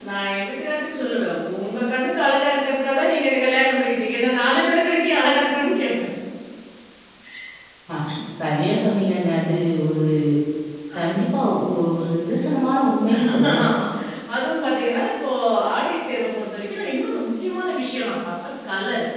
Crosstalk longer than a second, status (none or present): none